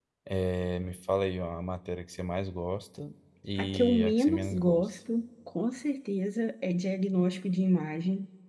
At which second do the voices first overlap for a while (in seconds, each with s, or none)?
3.6 s